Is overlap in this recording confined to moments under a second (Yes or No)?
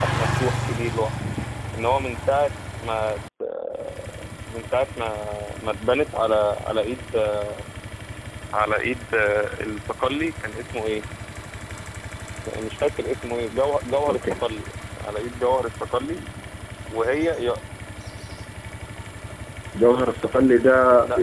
Yes